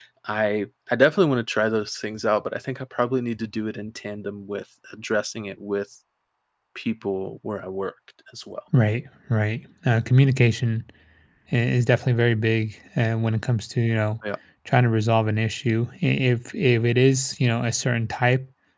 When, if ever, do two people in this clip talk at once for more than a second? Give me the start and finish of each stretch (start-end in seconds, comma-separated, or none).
none